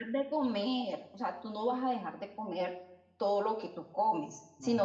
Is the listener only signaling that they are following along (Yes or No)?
Yes